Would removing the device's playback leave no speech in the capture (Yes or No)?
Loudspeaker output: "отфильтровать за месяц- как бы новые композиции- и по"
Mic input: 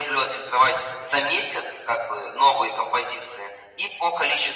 Yes